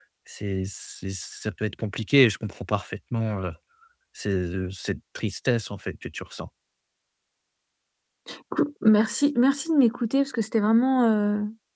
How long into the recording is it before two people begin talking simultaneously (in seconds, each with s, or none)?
none